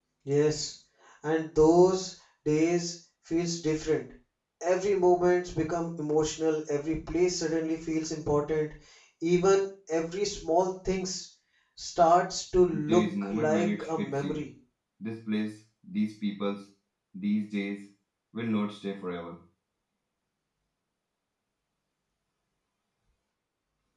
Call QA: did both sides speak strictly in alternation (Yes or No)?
No